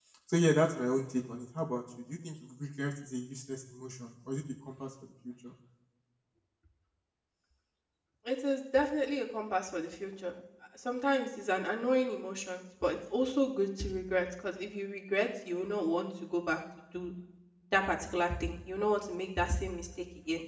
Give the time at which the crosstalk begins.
none

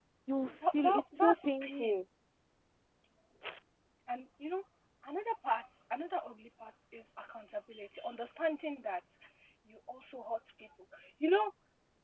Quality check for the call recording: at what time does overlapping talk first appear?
0.7 s

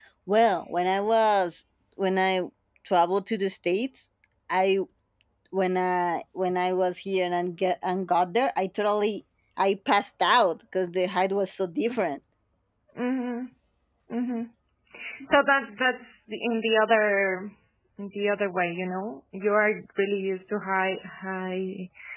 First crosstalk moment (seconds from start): none

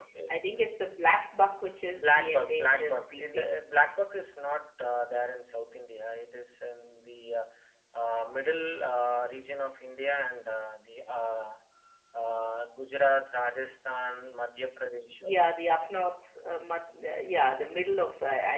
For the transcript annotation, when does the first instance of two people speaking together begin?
1.9 s

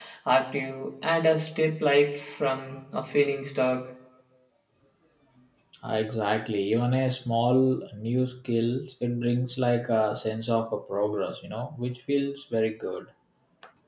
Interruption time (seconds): none

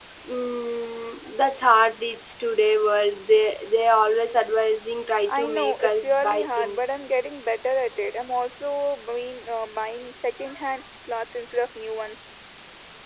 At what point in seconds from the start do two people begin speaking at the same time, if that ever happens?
5.3 s

